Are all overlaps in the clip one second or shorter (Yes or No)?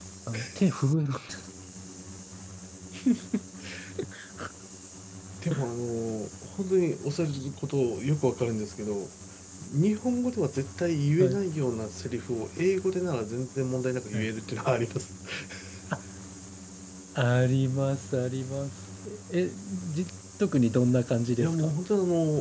Yes